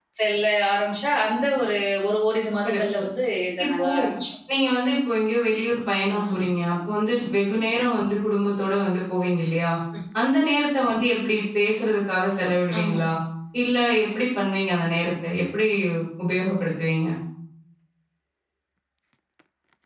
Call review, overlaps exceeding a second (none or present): none